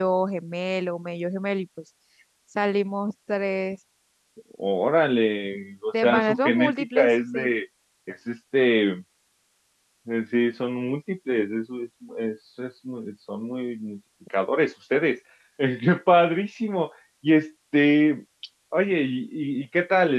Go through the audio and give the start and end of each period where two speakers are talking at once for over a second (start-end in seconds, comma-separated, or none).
6.0-7.5